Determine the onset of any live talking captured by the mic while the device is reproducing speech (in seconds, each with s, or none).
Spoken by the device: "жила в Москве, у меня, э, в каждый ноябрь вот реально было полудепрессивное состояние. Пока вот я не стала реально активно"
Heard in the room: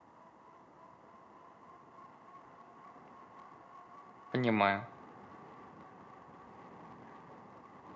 4.3 s